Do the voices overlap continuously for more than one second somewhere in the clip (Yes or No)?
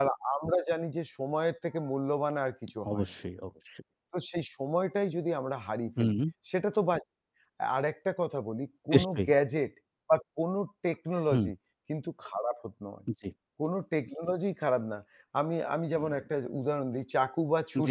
No